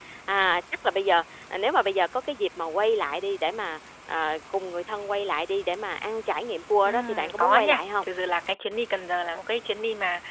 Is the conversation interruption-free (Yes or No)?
No